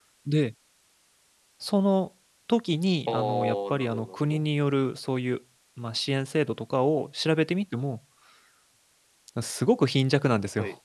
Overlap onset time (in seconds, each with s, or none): 3.1 s